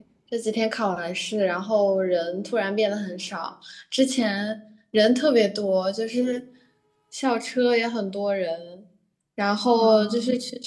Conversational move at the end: listening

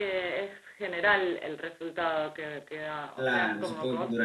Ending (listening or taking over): taking over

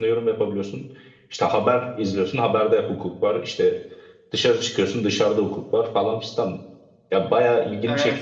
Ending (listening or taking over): taking over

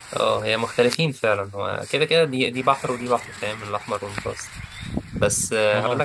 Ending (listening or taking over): listening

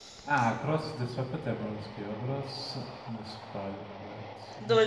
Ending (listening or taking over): taking over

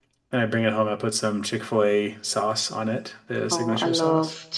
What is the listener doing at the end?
taking over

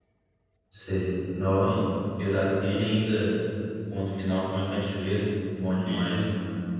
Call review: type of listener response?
taking over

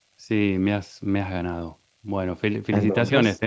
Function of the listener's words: listening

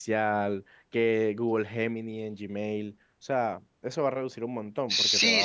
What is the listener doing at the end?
taking over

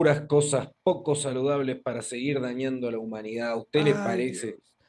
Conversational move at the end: taking over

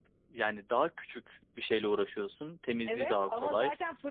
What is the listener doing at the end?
taking over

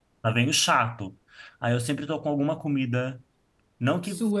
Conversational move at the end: listening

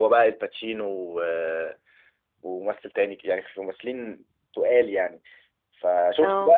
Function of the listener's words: listening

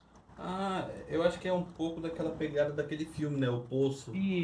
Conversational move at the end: taking over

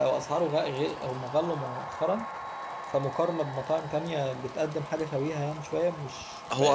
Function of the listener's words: listening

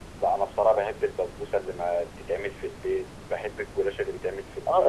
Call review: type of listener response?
taking over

